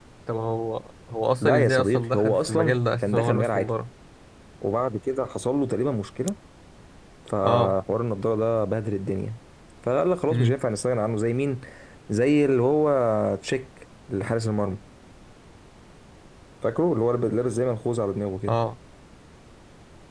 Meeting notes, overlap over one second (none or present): present